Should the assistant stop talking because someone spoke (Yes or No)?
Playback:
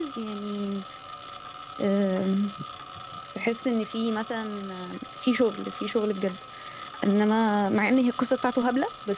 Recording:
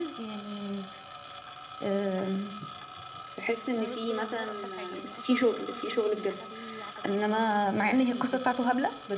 Yes